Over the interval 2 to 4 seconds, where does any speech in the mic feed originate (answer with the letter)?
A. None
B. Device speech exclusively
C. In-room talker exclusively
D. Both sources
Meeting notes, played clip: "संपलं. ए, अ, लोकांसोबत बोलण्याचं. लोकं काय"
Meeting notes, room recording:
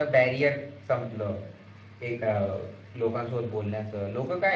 B